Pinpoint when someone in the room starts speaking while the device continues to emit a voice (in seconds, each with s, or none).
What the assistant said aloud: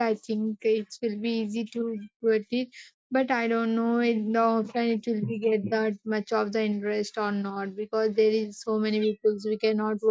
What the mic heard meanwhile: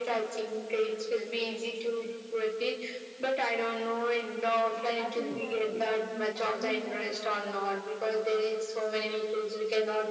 5.0 s